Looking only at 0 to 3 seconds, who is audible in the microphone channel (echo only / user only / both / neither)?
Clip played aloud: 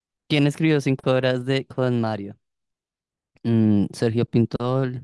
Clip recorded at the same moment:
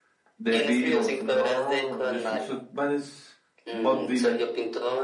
both